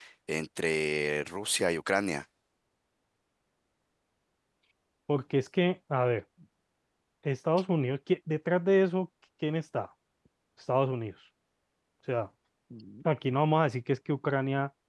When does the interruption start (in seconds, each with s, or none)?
none